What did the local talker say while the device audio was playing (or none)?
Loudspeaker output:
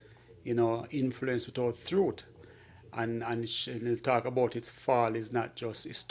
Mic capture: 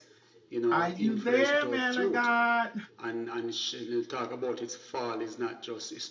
Are you there, man of God?